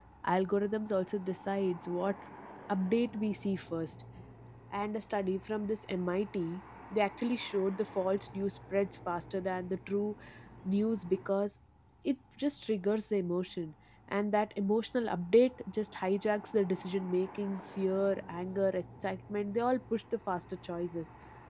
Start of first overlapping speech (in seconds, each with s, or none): none